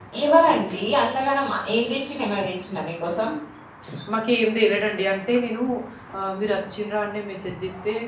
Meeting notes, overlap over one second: none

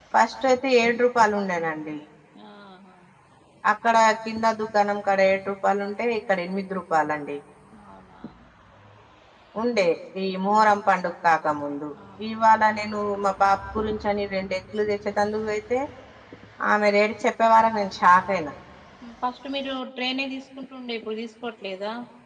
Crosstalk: none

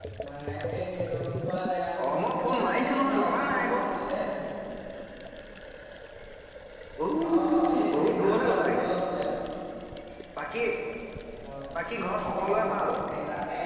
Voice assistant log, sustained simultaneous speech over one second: present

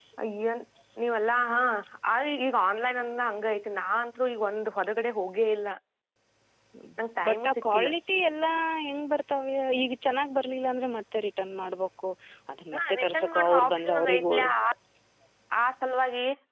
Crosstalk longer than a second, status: present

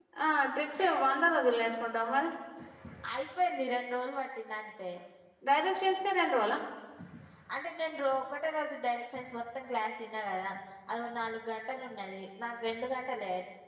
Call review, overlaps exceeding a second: none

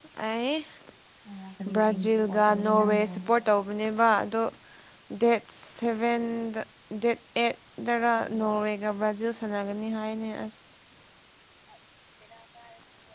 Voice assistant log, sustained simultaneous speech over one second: present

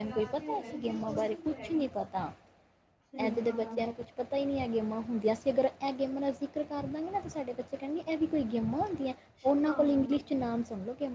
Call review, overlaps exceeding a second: present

